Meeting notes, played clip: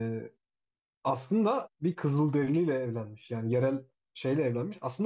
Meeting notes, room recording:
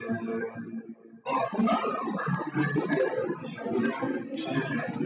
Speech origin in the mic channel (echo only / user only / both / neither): both